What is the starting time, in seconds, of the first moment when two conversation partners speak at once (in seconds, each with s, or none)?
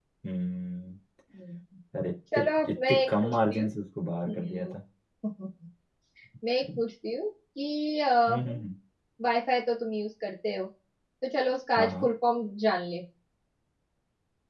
2.3 s